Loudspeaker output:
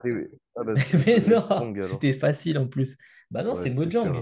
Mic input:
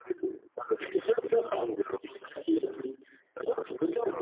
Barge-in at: none

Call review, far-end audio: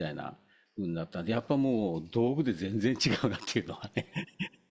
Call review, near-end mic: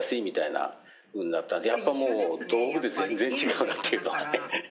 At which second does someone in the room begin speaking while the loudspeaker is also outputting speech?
1.7 s

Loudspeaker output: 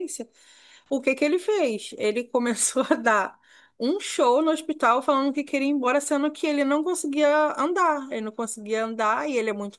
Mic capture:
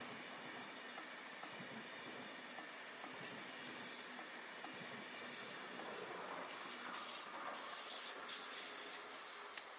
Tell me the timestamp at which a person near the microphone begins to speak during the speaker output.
none

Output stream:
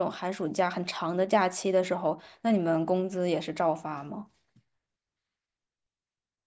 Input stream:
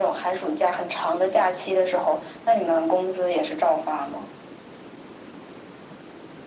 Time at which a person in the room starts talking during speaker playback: none

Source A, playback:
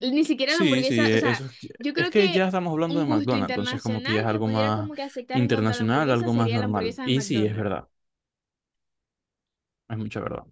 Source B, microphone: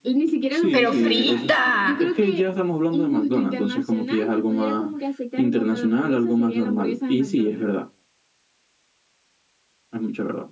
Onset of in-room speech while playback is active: 0.7 s

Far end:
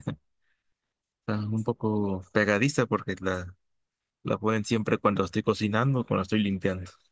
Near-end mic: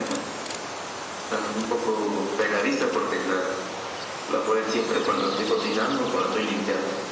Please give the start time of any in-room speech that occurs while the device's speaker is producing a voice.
none

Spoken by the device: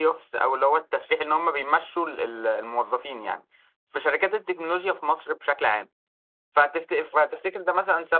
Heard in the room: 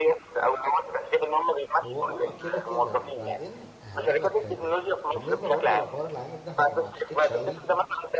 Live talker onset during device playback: 1.8 s

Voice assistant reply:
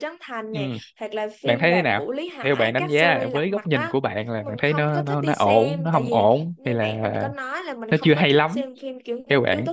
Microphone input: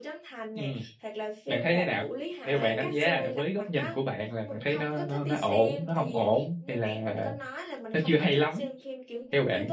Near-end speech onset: 2.4 s

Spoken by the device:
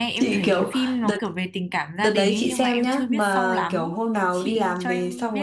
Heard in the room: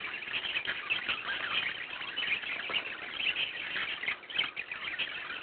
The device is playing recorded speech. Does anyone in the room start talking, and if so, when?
none

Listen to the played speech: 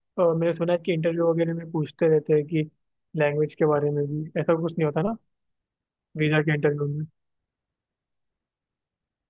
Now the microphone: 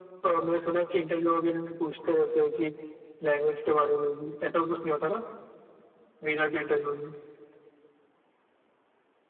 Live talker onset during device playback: none

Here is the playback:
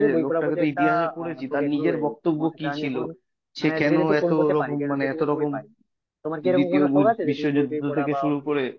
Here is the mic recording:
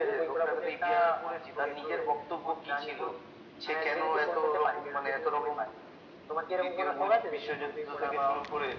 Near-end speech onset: none

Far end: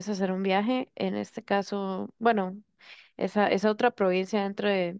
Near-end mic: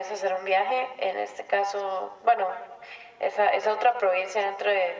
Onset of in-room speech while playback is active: none

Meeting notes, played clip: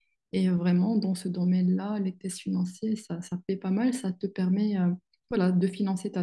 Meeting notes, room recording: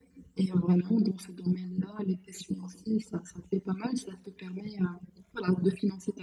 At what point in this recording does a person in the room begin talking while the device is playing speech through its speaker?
none

